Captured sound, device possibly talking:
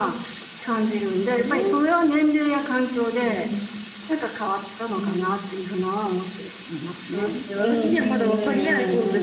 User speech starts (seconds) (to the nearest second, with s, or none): none